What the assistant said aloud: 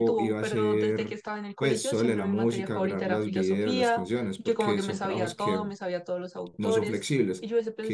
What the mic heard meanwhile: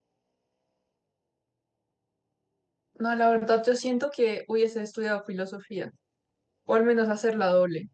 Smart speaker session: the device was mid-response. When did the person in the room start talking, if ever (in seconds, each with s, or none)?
2.9 s